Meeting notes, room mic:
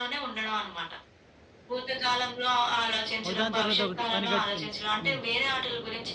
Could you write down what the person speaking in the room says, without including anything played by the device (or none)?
ఒకదాని తర్వాత ఒకటి పని కట్టుకొని. హ్మ్.